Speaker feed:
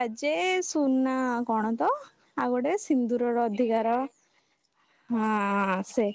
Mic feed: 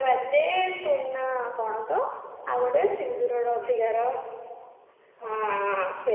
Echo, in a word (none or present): present